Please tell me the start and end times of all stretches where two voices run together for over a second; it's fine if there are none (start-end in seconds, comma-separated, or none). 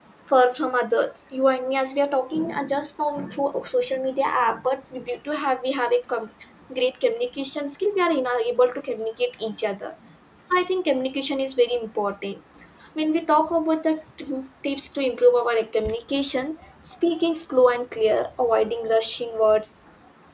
none